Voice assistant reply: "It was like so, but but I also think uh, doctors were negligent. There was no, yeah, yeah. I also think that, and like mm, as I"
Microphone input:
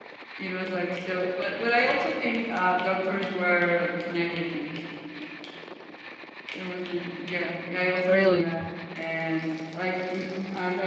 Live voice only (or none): really?